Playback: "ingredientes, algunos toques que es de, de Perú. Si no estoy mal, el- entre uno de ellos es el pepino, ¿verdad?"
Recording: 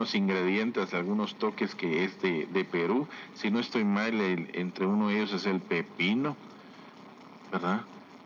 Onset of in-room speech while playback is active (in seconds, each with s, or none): none